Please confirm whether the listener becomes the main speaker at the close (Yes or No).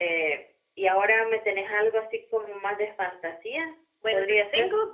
Yes